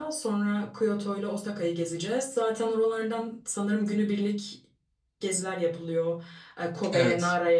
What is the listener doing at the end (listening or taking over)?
listening